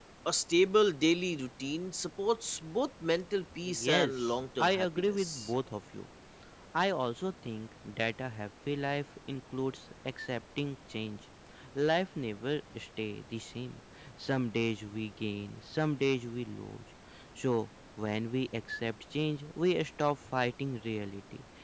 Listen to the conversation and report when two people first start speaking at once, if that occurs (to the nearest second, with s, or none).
4 s